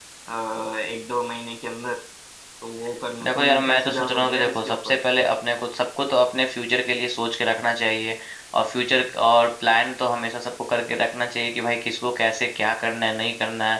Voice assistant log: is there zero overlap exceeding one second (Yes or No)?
No